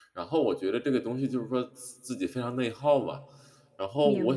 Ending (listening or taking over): listening